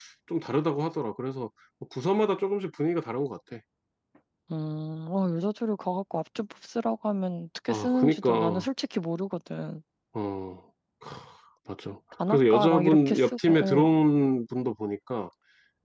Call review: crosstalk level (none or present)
present